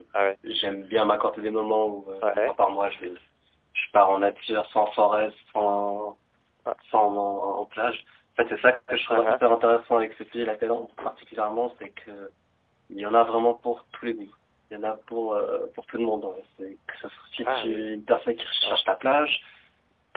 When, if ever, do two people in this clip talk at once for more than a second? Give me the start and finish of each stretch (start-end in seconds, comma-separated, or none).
none